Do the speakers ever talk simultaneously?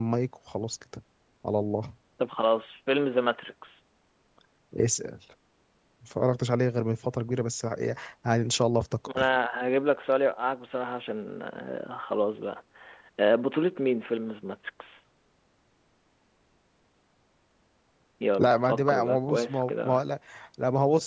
Yes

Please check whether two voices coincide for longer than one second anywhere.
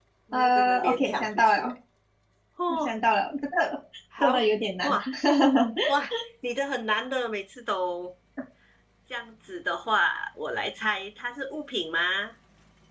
Yes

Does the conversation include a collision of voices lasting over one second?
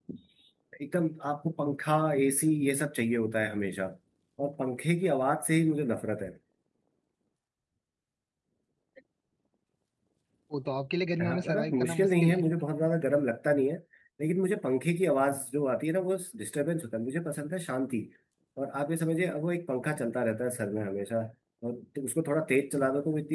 Yes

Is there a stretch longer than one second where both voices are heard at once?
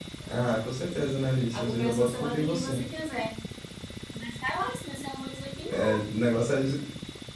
Yes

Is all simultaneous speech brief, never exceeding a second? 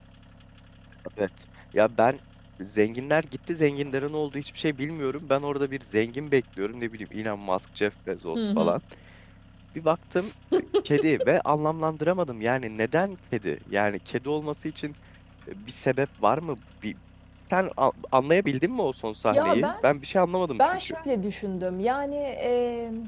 Yes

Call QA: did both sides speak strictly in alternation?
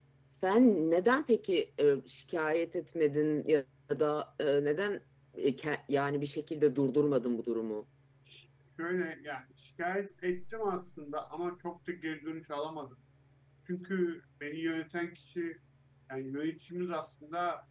Yes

